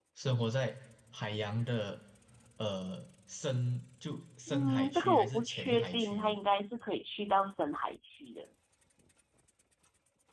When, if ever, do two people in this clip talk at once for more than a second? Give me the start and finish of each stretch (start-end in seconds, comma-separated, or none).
4.5-6.3